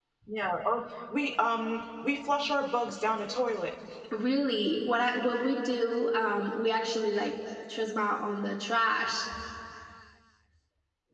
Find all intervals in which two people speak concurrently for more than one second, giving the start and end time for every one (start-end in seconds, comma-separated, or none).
none